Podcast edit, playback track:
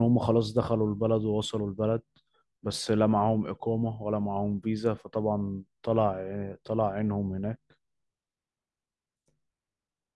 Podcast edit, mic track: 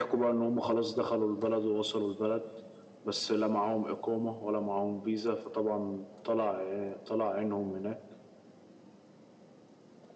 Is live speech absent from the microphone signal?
Yes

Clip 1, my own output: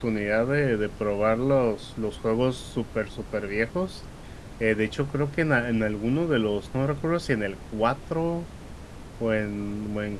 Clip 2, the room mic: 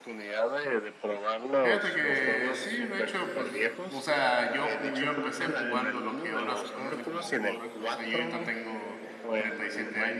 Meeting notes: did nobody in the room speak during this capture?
No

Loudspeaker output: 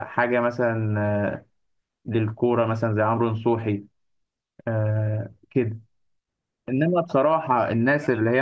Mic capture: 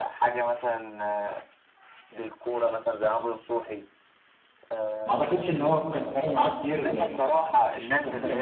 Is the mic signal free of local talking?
No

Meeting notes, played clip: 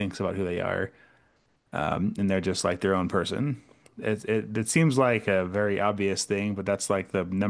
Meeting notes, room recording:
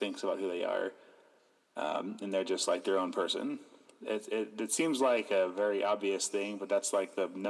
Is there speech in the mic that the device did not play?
No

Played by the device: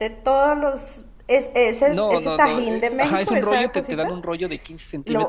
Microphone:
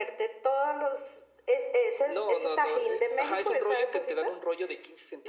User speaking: No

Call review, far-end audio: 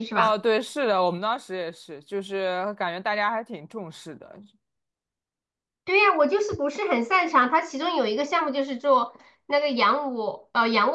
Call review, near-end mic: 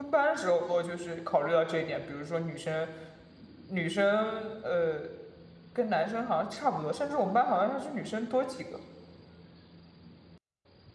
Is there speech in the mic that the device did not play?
Yes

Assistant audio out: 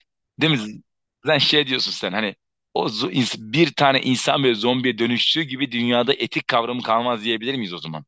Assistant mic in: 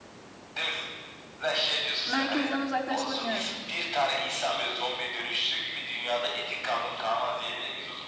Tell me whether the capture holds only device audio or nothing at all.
No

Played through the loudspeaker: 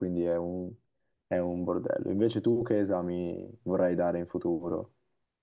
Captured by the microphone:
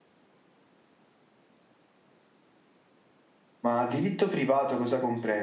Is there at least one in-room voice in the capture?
Yes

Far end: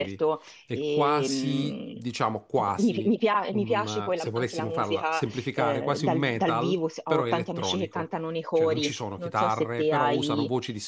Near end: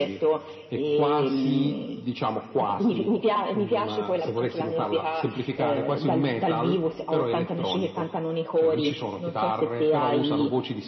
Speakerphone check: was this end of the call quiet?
Yes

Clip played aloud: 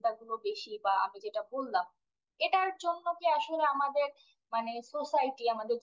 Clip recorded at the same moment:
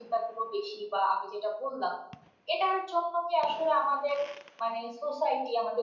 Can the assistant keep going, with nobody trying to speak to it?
Yes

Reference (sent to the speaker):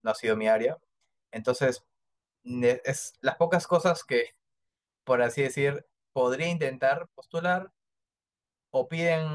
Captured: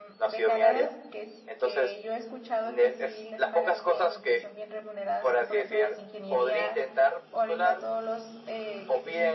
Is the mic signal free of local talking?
No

